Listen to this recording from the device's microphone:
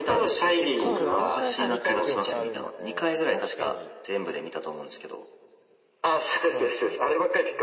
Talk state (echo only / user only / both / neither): both